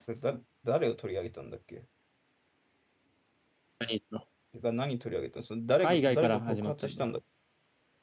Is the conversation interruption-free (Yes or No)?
No